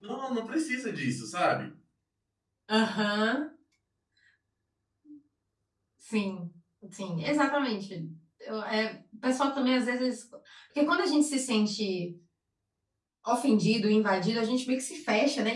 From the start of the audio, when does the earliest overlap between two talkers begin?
none

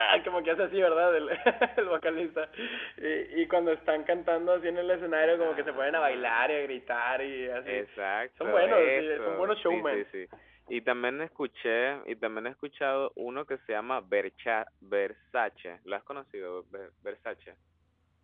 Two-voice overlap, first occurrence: 5.2 s

